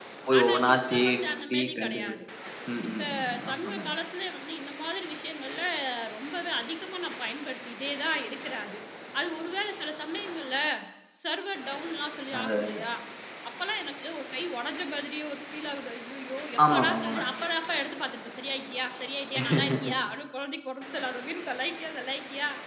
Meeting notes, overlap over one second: present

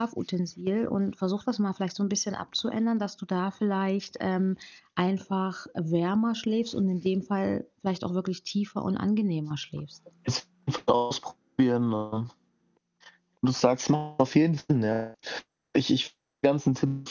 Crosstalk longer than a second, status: none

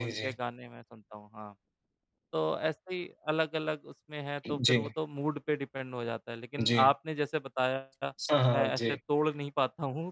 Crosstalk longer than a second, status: none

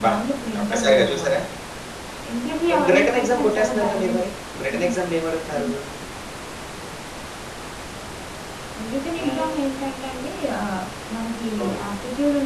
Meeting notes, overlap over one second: present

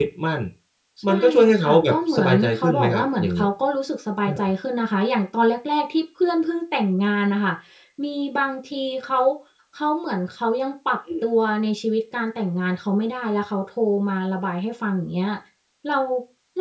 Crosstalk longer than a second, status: present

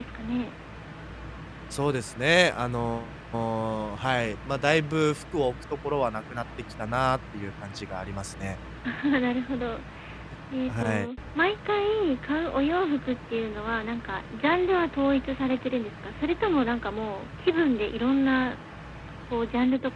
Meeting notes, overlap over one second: none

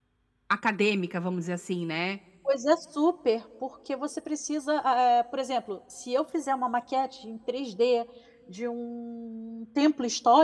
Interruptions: none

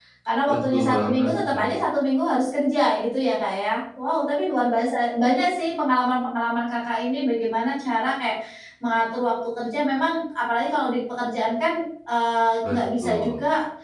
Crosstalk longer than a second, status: present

